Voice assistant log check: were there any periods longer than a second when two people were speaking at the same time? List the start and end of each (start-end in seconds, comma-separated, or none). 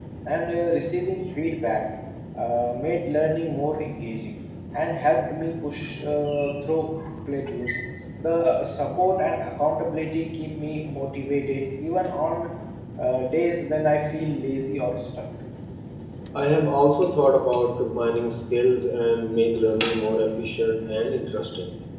none